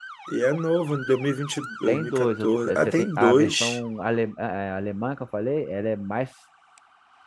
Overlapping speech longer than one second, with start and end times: 1.9-3.8

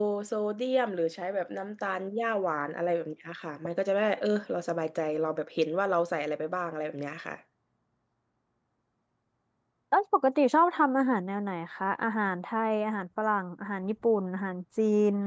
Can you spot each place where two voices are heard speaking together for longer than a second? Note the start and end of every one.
none

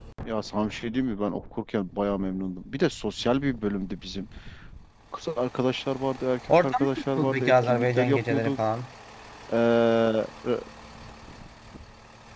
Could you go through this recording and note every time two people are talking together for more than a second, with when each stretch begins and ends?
6.6-8.6

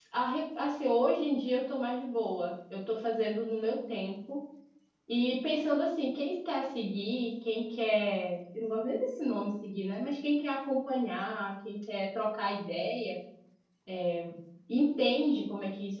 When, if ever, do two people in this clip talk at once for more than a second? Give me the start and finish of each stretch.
none

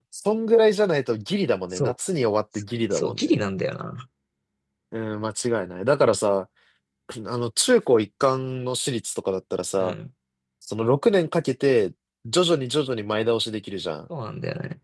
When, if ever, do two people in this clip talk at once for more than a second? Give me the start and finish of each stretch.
none

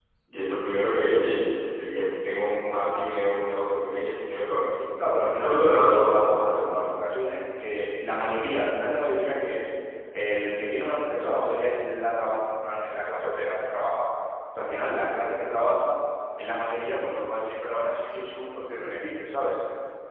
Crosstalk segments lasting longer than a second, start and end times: 5.0-6.8

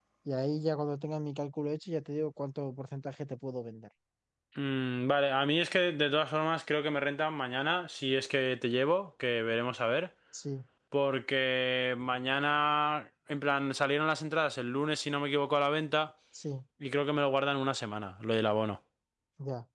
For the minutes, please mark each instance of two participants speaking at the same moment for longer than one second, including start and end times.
none

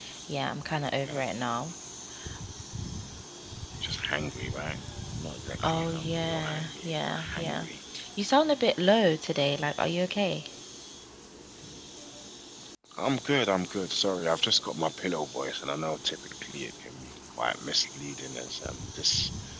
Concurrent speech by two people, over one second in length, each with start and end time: 5.6-7.7

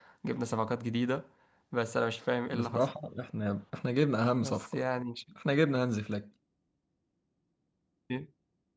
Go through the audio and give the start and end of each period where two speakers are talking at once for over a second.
none

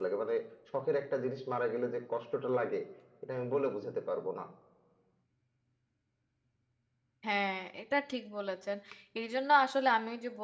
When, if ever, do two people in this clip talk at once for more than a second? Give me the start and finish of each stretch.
none

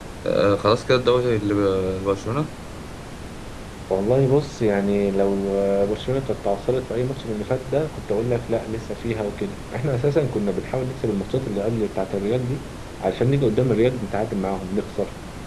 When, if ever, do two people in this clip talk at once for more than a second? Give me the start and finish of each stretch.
none

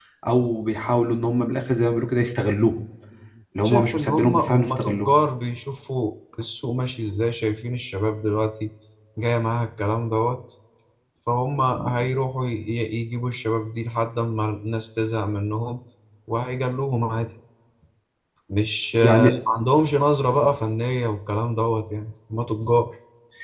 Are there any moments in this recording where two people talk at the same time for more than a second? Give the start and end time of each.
3.6-5.2

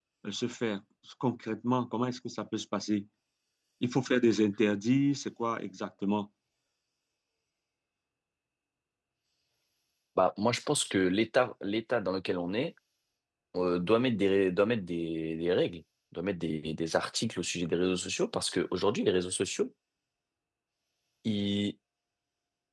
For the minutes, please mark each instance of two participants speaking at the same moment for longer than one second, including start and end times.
none

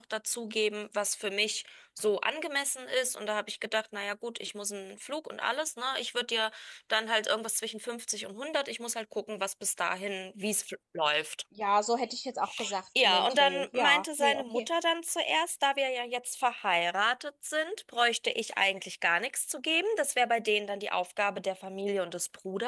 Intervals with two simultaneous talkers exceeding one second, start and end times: 13.0-14.7

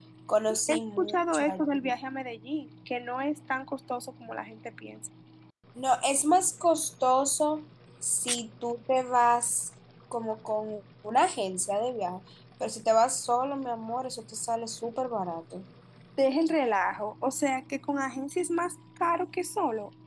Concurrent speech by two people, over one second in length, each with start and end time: 0.7-1.9

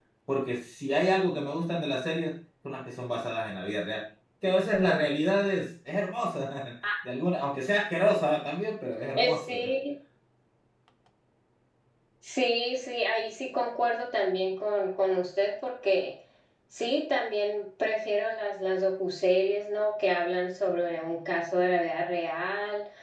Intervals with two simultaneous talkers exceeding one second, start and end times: none

